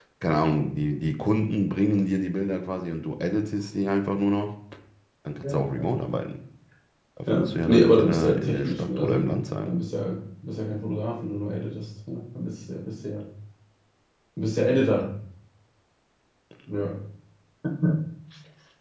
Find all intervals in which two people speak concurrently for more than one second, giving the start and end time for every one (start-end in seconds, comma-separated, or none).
7.3-9.2